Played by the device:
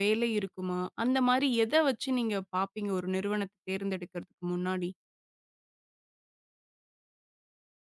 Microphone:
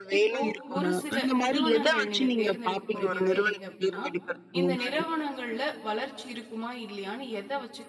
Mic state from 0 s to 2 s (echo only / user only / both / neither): both